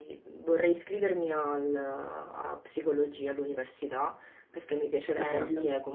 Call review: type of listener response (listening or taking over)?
listening